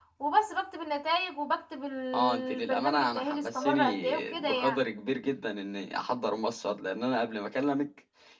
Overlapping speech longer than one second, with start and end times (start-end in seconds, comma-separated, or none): 2.1-4.8